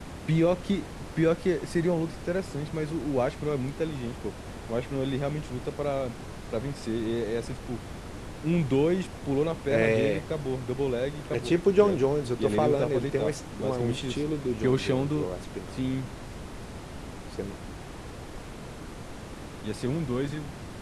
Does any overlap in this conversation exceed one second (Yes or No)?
Yes